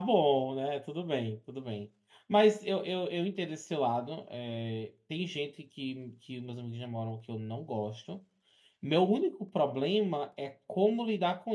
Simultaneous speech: No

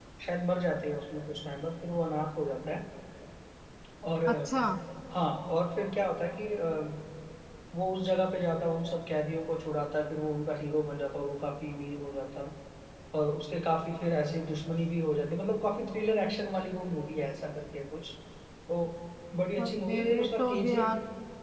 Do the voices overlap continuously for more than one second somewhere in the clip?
Yes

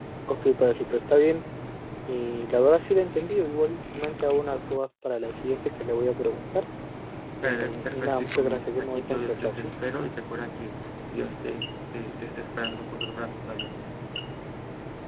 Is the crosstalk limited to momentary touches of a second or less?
No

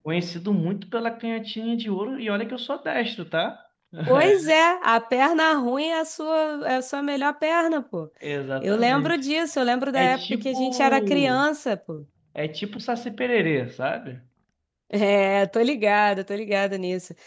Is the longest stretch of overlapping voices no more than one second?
No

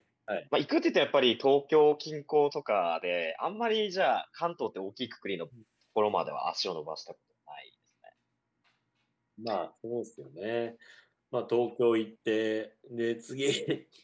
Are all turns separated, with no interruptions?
Yes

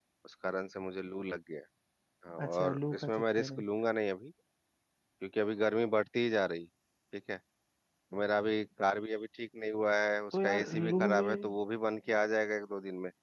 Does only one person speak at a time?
No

